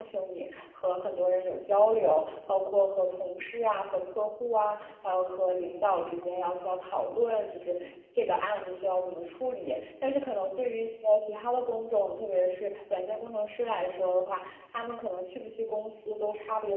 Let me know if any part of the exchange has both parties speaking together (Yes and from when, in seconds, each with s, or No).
No